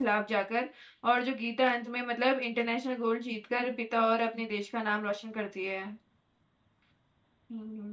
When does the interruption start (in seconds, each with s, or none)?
none